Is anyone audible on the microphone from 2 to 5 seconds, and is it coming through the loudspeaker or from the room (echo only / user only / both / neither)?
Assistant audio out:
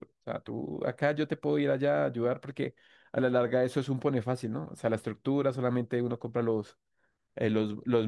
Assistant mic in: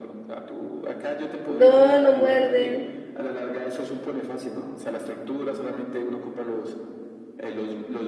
both